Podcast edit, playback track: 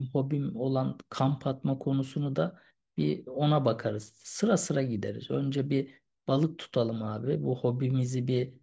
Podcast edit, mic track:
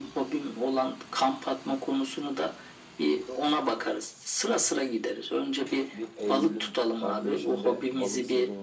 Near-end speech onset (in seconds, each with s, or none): 5.9 s